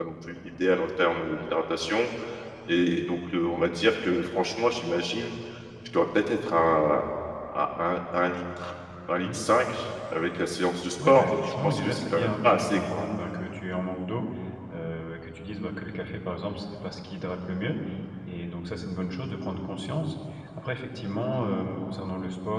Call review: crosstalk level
present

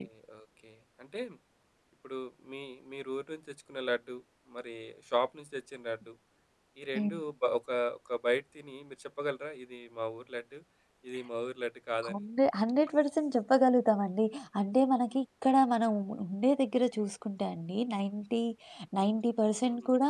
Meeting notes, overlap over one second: none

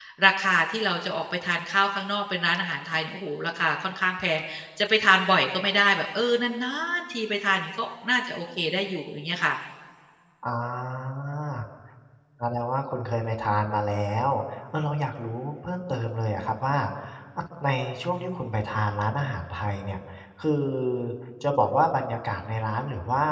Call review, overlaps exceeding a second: none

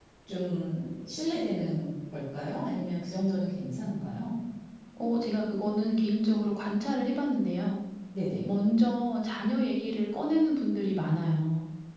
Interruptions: none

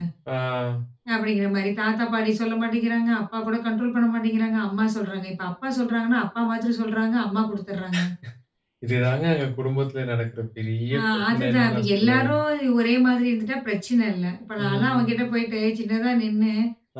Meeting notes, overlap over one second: present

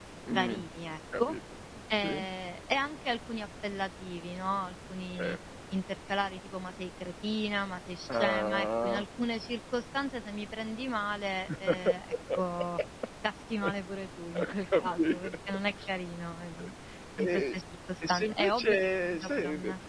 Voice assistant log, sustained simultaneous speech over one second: present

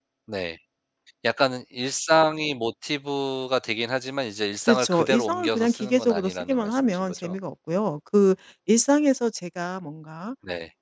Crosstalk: present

